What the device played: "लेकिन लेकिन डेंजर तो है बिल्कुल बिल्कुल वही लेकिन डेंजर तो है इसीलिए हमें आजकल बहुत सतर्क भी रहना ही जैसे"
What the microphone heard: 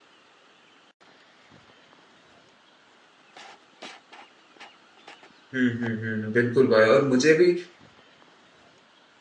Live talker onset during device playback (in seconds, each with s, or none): 5.5 s